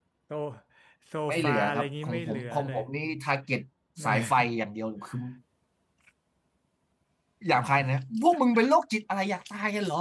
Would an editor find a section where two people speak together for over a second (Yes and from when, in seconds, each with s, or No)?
Yes, from 1.3 s